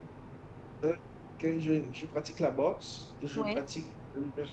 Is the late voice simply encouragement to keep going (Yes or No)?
Yes